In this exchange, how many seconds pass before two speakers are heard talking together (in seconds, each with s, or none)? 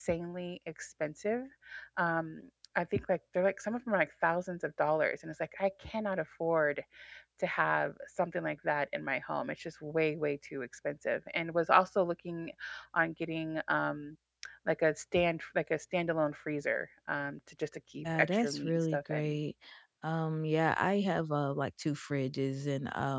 18.1 s